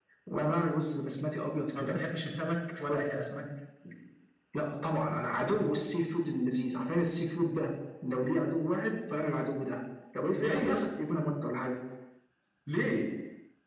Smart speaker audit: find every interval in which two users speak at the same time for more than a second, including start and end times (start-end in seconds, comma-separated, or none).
none